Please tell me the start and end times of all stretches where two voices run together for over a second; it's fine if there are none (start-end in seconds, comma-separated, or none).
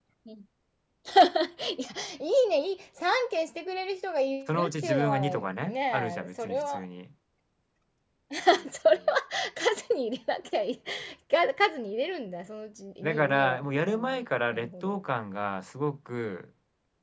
4.5-6.8, 13.0-15.0